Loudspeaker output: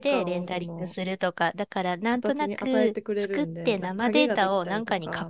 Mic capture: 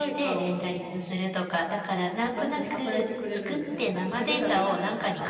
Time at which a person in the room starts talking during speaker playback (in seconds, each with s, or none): none